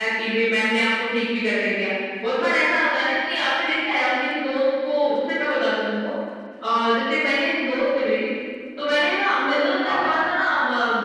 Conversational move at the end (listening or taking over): listening